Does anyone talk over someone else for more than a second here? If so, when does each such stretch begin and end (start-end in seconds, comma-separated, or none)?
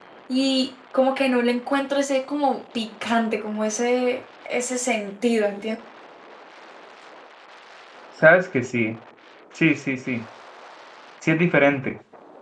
none